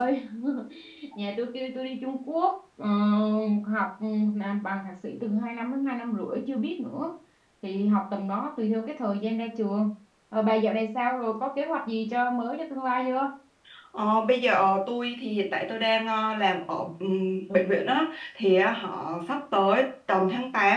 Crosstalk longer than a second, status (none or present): none